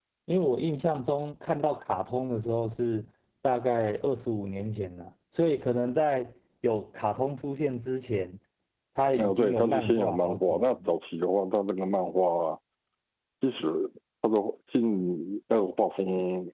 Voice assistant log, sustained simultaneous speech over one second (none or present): present